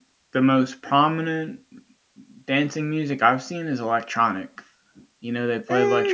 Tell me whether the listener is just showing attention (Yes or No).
Yes